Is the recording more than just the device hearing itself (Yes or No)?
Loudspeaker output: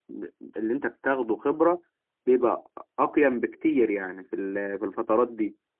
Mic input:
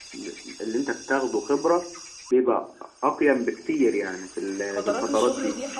Yes